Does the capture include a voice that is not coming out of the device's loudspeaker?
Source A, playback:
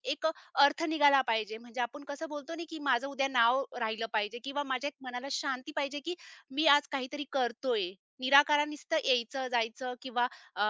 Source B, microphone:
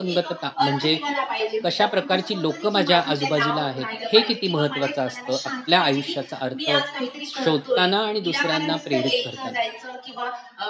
Yes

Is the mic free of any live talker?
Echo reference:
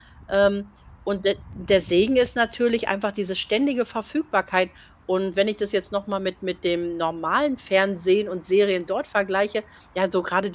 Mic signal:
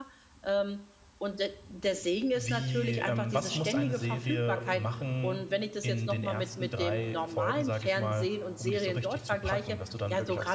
No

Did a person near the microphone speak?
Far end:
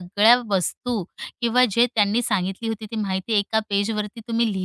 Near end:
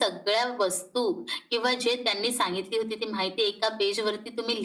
No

